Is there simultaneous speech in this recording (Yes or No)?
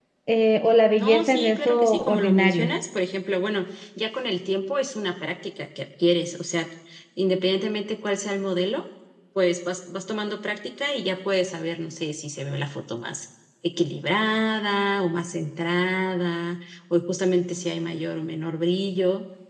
Yes